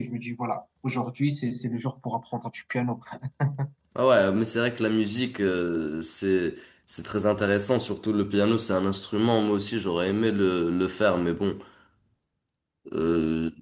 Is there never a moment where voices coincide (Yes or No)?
Yes